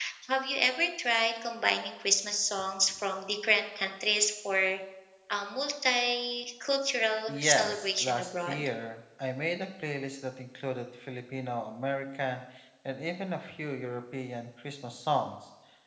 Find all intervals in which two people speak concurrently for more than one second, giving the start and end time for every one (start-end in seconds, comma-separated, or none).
7.3-8.7